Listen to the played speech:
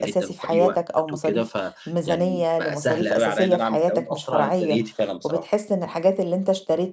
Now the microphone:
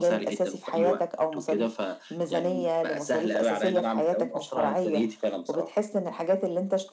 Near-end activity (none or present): none